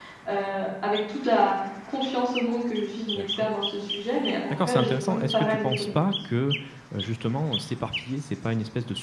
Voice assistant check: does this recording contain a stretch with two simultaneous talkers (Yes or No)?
Yes